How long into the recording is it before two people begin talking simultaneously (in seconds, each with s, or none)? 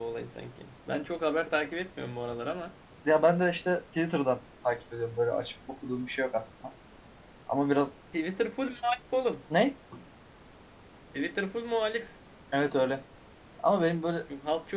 none